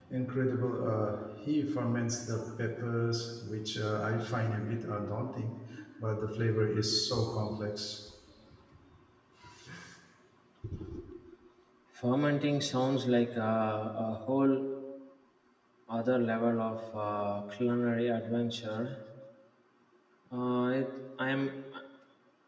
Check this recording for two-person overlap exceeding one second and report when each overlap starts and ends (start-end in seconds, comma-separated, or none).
none